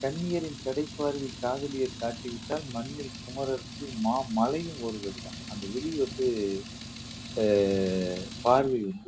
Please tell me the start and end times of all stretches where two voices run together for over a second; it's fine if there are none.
none

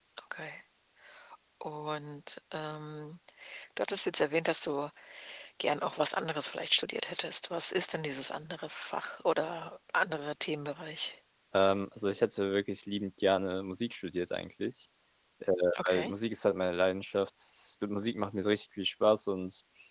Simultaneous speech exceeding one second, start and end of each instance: none

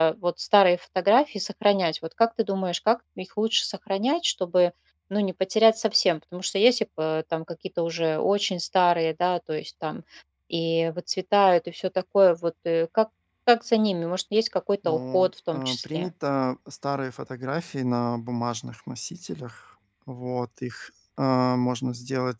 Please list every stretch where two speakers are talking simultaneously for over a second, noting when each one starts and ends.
14.8-16.1

